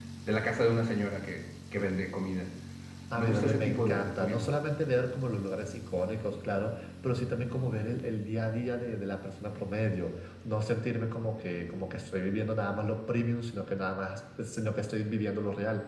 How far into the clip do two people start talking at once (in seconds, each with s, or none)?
3.2 s